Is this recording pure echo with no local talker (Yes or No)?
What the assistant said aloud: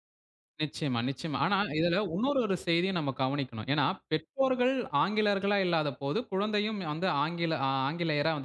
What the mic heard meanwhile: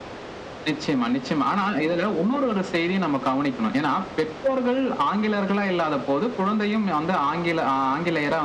Yes